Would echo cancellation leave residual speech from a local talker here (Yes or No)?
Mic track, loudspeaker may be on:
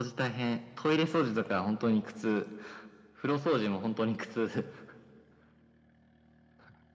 No